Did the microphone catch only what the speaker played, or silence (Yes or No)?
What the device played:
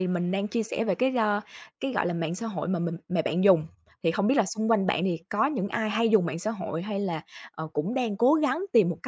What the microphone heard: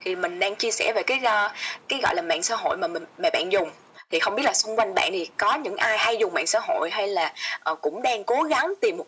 Yes